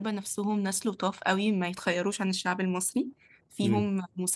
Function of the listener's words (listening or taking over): listening